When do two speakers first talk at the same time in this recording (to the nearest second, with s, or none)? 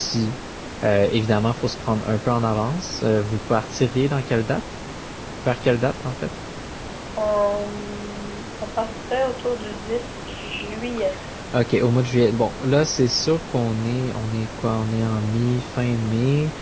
none